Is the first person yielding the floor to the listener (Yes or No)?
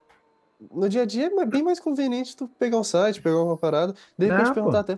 No